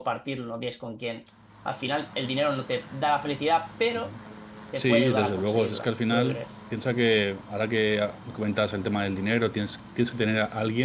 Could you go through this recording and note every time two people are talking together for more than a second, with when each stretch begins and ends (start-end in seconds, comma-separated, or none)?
4.8-6.5